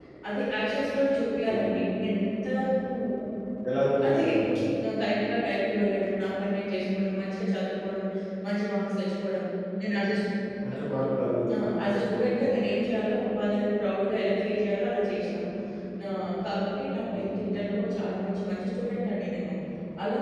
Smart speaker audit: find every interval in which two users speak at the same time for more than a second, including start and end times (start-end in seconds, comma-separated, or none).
none